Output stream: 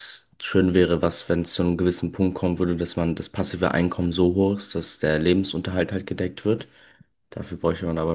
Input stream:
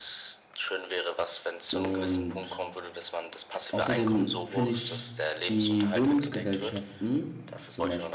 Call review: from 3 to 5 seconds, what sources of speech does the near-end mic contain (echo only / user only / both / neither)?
both